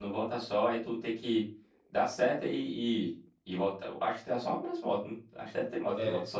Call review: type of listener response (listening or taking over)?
taking over